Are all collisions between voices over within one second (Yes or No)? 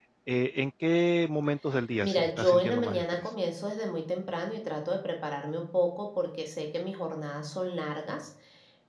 No